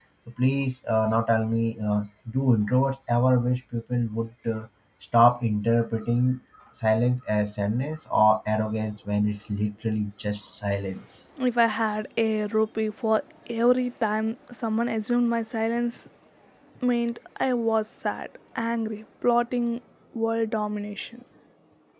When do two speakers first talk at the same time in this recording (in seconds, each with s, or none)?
none